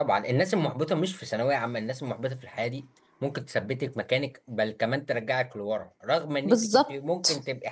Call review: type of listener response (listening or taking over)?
listening